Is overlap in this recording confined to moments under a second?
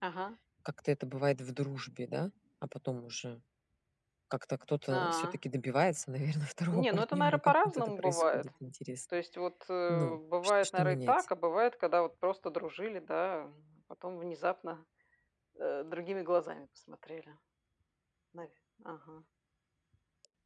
No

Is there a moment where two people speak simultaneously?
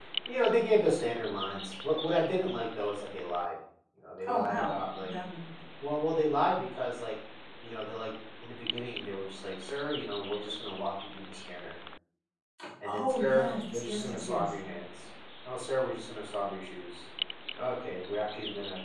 Yes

